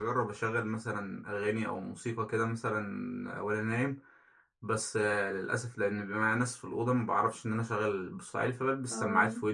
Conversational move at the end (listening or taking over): listening